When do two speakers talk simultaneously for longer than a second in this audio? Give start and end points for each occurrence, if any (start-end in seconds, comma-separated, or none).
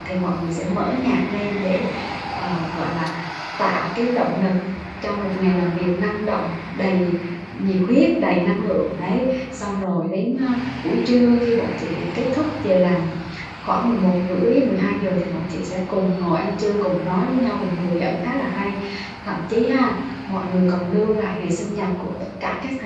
none